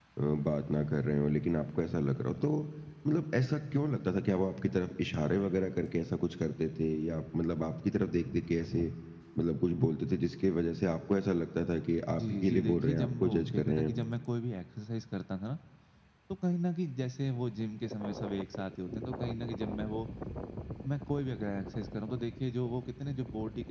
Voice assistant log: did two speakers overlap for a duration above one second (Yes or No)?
Yes